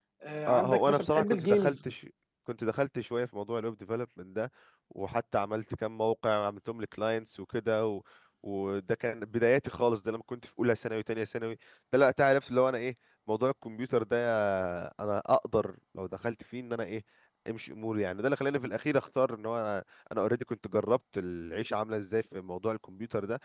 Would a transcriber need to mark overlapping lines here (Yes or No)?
Yes